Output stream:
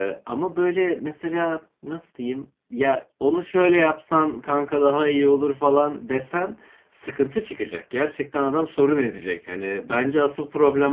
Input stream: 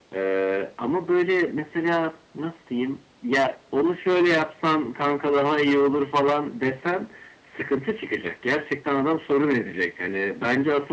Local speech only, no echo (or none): none